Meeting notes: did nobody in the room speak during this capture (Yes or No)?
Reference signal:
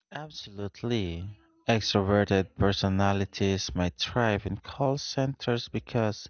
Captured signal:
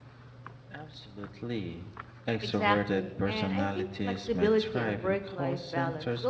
No